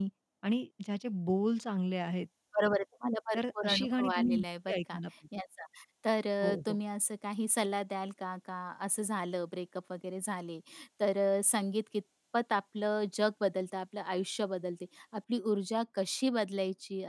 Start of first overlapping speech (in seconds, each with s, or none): 3.3 s